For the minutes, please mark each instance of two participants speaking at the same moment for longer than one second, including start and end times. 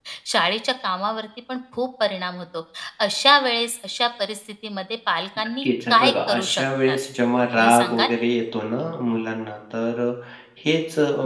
5.6-7.0

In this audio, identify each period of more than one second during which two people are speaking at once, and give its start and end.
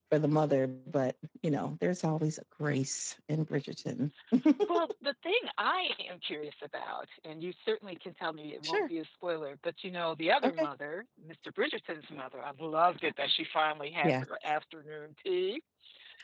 none

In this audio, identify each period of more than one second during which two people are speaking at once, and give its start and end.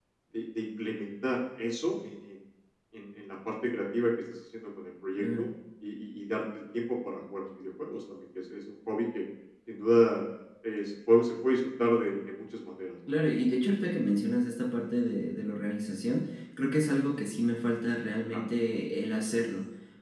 none

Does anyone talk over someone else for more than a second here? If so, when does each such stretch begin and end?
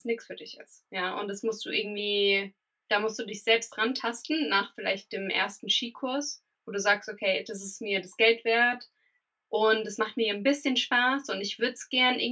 none

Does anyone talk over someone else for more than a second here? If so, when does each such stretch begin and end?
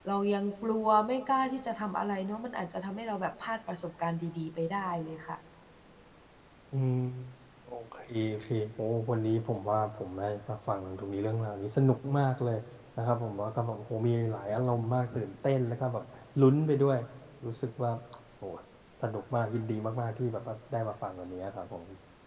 none

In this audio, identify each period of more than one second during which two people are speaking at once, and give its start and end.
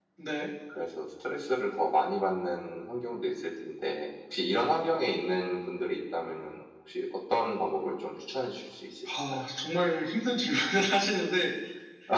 none

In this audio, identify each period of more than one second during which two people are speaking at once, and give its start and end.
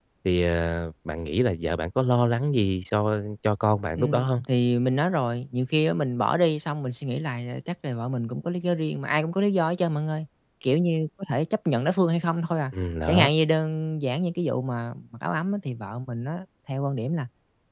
none

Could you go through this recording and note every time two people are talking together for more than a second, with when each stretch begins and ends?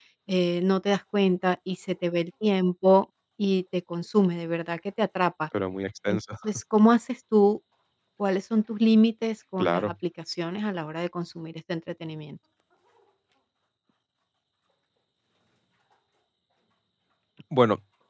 none

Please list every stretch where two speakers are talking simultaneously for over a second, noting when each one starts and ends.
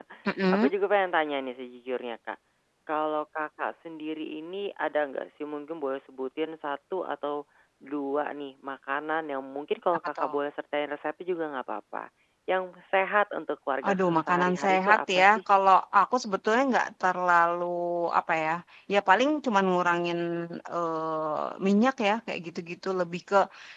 13.8-15.4

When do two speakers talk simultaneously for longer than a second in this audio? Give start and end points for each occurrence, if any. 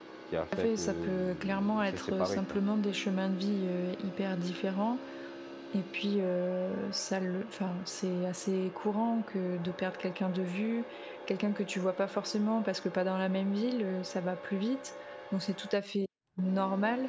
0.6-2.6

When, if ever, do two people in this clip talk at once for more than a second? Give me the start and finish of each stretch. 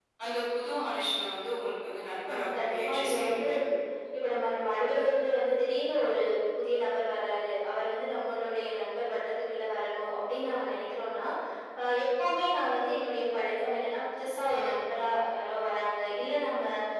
2.3-3.5

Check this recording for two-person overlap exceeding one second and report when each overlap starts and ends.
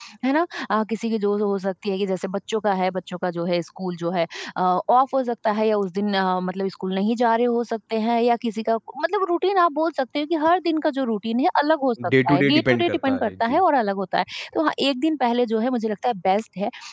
12.2-13.6

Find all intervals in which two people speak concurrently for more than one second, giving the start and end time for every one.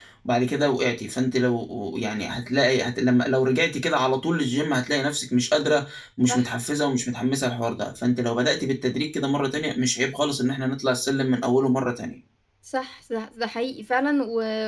none

